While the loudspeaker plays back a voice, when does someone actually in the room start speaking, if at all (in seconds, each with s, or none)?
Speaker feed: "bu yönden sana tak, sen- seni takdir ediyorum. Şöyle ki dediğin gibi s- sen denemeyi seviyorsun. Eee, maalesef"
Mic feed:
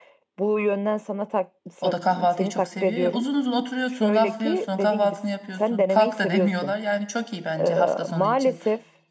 1.8 s